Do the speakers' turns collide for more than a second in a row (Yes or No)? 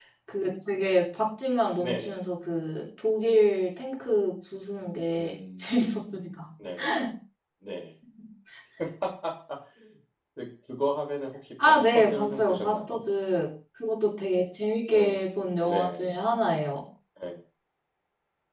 Yes